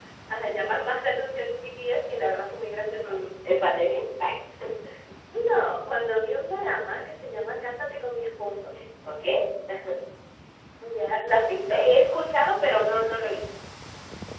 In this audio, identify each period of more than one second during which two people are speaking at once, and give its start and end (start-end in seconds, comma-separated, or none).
none